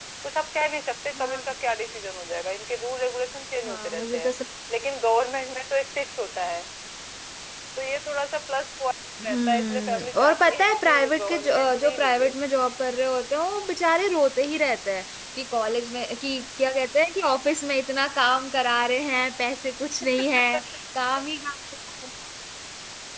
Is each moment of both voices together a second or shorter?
No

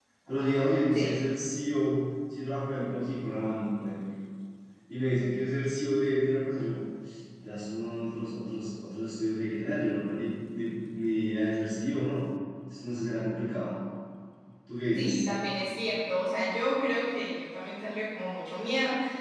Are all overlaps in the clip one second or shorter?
Yes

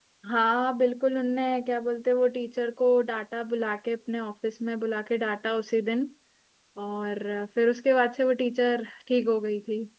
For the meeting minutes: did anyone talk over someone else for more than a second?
No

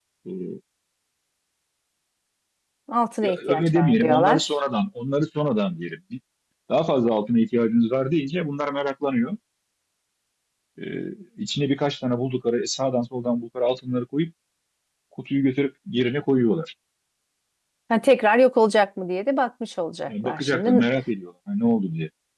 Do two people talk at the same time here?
Yes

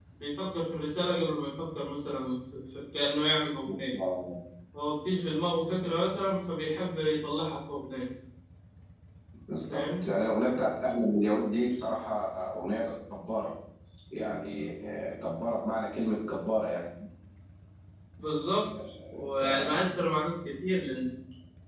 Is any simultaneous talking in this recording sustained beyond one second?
No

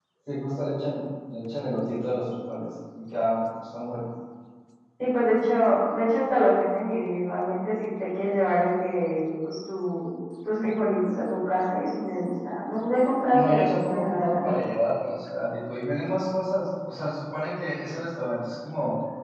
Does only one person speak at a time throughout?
No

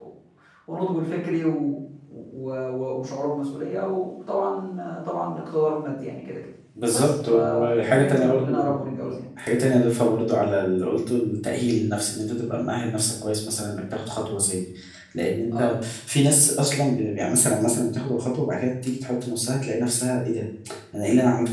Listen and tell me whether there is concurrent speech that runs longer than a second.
Yes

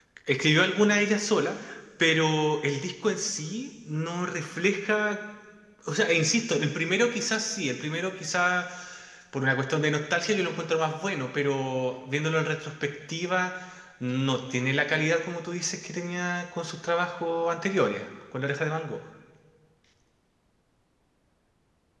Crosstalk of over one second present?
No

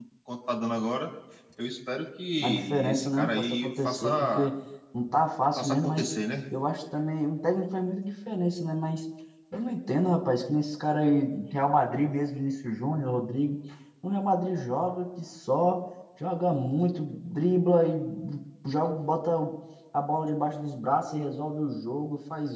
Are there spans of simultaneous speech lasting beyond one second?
Yes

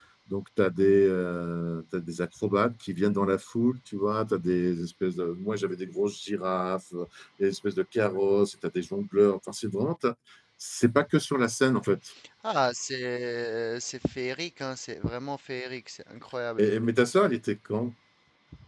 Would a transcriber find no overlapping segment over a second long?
Yes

